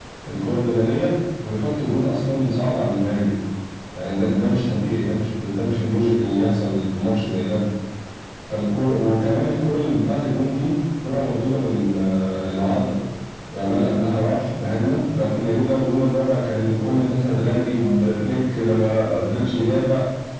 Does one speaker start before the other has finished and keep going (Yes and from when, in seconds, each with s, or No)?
No